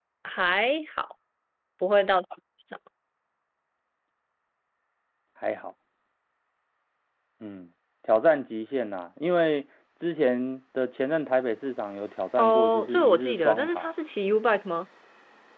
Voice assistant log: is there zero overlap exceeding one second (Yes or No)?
No